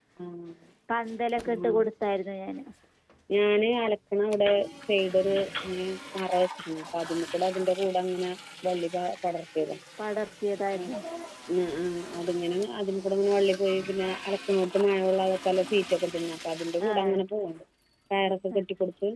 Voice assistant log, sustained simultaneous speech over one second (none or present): none